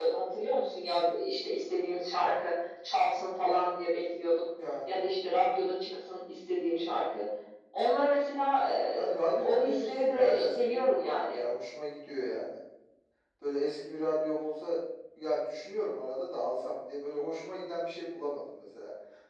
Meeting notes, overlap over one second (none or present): present